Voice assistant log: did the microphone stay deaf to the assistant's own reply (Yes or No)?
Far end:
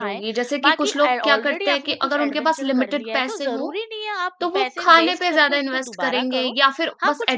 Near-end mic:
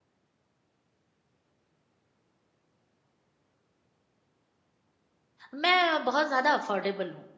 Yes